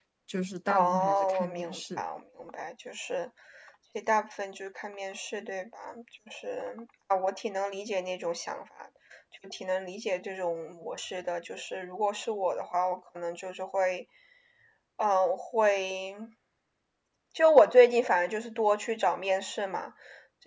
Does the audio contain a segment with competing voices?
Yes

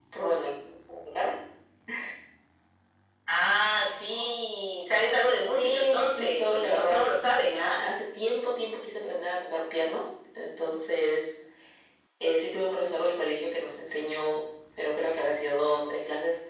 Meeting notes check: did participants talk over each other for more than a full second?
Yes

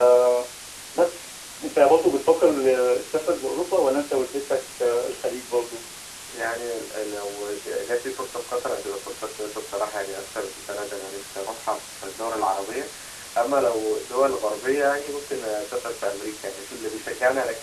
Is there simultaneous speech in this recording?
No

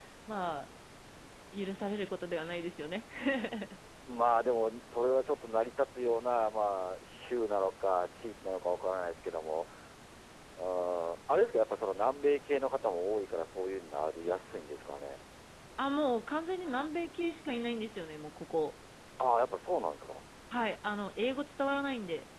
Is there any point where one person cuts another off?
No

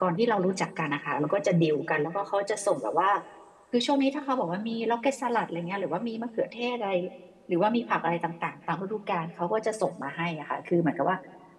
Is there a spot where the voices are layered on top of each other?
No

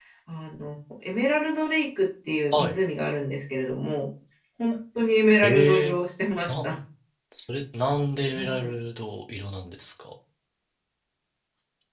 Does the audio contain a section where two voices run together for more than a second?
No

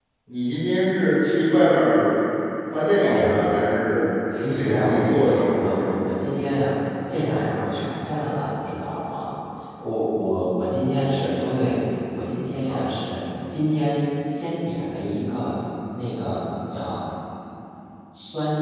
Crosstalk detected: Yes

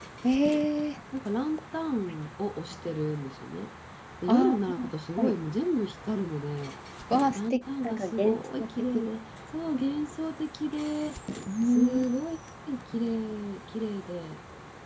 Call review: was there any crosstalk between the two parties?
Yes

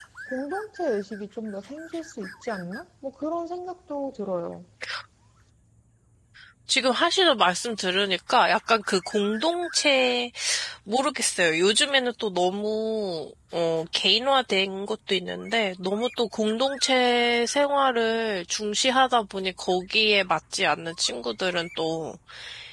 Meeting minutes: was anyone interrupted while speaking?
No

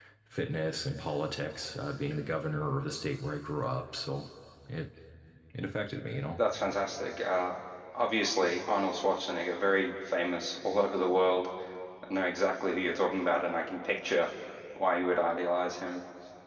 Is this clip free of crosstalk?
Yes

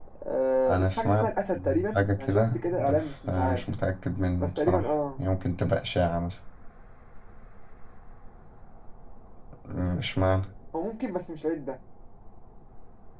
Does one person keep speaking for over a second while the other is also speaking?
Yes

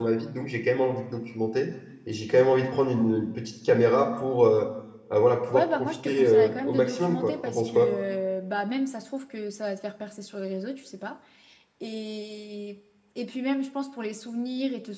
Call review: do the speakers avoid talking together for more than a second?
No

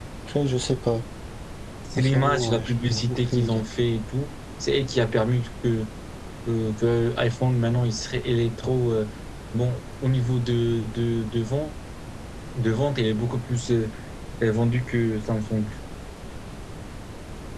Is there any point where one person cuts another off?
Yes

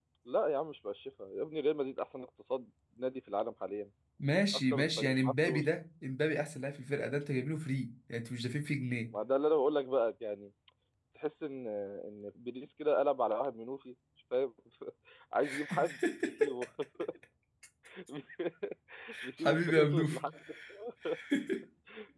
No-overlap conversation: No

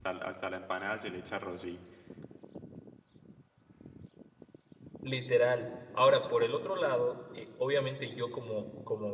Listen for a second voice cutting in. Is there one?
No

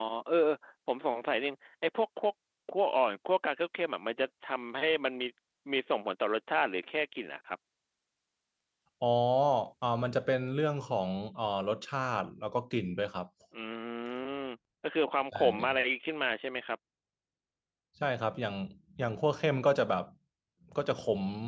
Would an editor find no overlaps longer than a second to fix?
Yes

